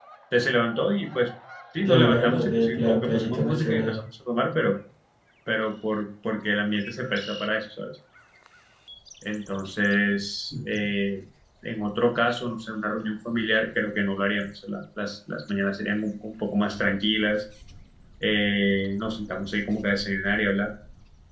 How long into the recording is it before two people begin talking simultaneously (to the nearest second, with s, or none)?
2 s